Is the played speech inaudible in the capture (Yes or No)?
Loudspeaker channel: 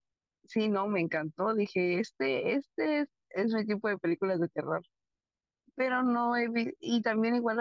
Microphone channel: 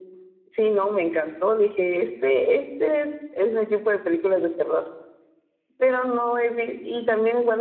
No